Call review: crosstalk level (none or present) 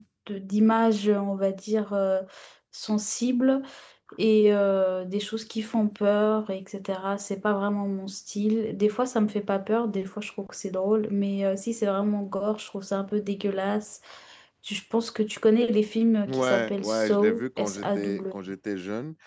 present